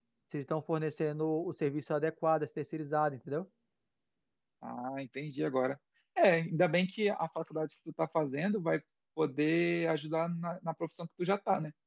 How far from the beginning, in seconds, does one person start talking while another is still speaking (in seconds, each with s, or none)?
none